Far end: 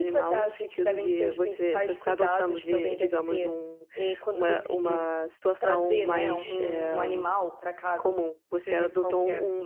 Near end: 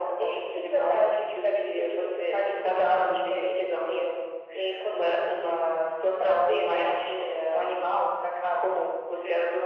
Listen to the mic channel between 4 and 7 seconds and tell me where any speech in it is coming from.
echo only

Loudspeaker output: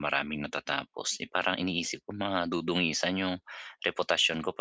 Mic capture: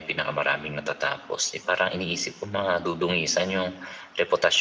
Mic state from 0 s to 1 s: echo only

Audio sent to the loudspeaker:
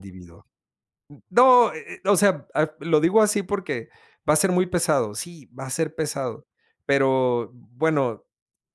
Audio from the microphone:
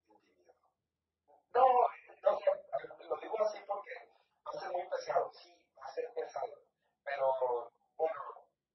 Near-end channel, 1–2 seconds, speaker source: echo only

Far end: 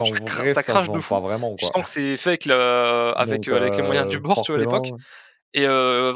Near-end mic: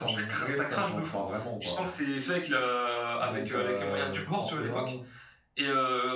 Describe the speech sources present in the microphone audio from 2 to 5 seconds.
echo only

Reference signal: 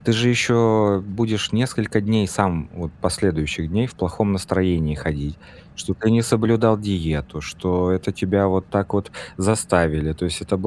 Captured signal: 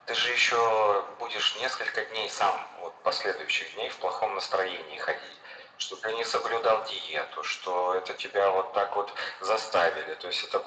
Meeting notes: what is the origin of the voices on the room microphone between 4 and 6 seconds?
echo only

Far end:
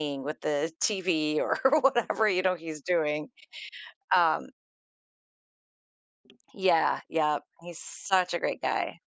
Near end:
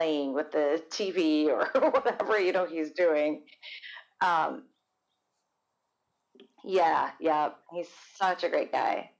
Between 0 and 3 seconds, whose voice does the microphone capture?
echo only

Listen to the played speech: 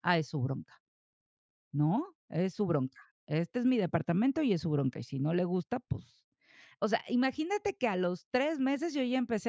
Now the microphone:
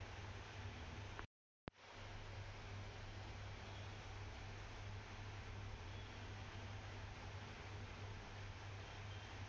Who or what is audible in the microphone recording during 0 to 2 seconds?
neither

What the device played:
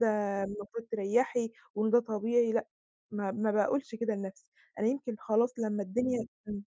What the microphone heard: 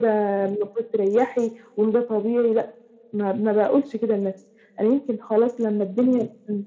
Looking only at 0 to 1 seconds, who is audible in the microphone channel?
echo only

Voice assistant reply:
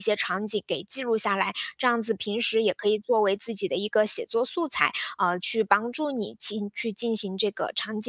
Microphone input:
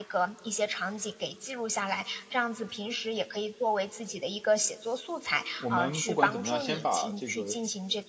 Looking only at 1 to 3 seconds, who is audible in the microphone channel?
echo only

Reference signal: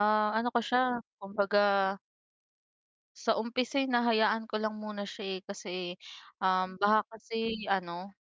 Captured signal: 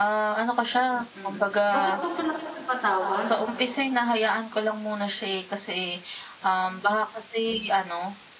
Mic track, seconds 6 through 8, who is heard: echo only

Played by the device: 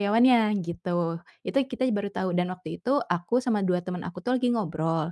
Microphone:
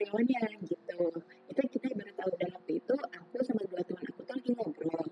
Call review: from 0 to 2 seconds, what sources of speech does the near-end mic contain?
echo only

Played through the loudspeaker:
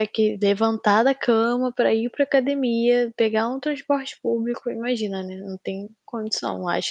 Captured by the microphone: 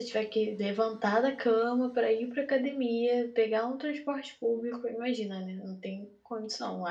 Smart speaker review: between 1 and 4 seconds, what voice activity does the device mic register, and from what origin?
echo only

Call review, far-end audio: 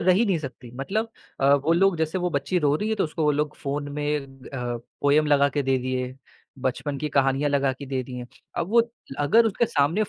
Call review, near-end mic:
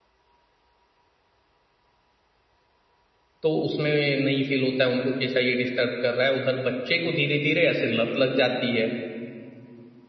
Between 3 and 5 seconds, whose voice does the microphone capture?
user only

